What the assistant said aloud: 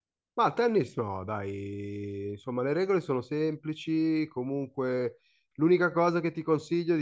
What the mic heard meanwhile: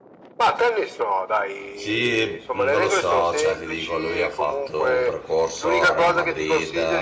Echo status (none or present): present